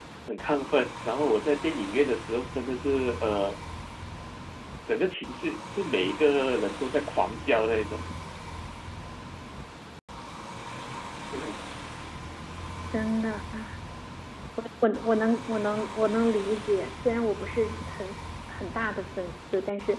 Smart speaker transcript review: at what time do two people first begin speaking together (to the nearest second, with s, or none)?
none